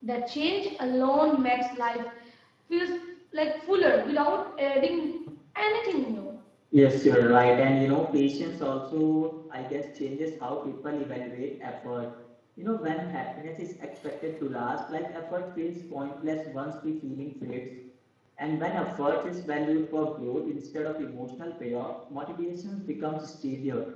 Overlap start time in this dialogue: none

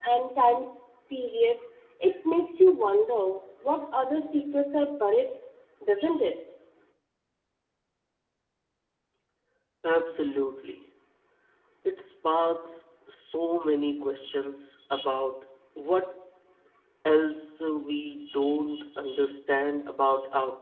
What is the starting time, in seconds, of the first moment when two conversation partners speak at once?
none

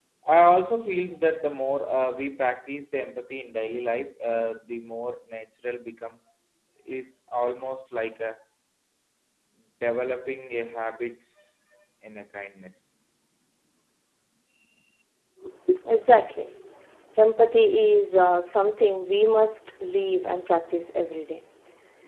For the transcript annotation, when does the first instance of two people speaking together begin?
none

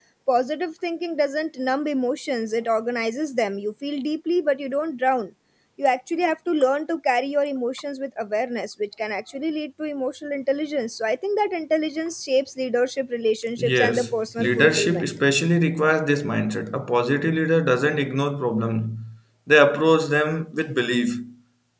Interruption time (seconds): 13.6 s

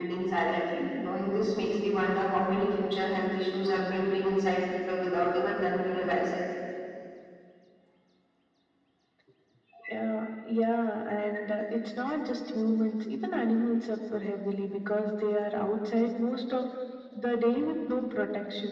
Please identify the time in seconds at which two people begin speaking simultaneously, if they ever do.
none

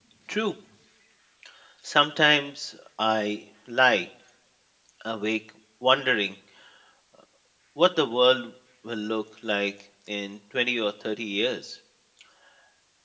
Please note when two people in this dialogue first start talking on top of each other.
none

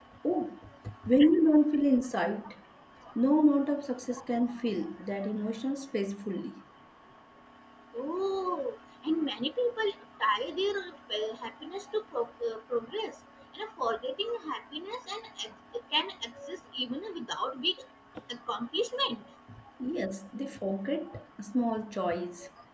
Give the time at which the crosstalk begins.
none

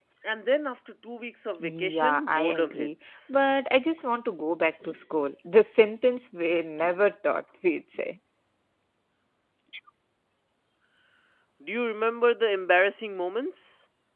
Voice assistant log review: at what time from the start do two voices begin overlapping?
1.6 s

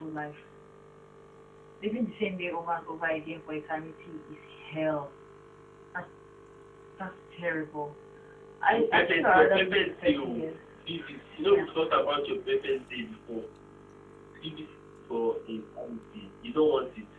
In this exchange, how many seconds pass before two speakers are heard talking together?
8.7 s

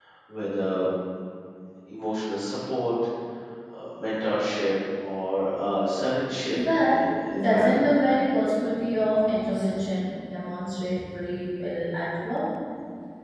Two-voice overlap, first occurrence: 6.6 s

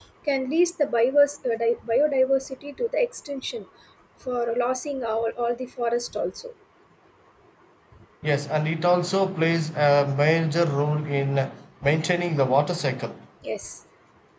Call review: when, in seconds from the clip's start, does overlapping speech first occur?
none

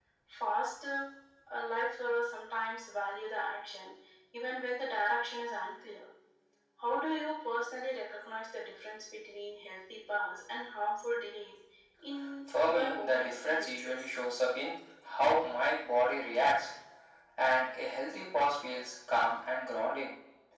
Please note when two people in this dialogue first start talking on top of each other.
12.6 s

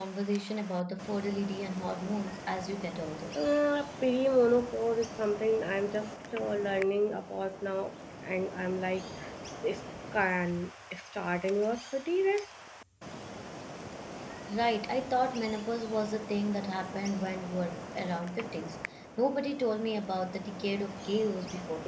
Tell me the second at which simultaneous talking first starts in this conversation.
none

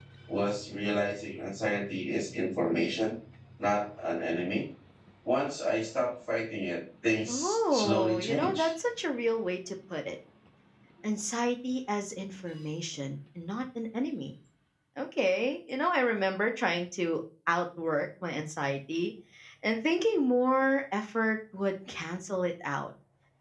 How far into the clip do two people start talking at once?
7.3 s

